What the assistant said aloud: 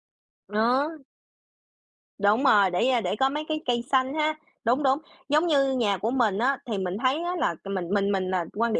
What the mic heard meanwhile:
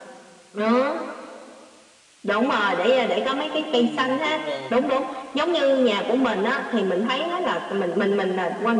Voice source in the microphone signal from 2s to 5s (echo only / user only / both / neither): both